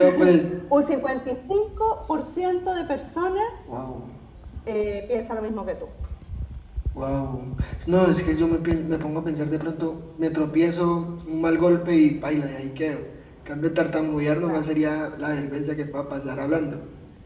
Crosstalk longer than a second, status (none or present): none